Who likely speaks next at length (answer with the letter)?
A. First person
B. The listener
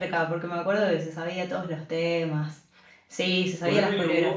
B